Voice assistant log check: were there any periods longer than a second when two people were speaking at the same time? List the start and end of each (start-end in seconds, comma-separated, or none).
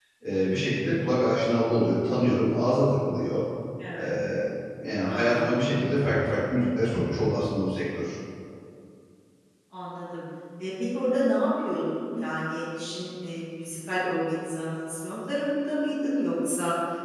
none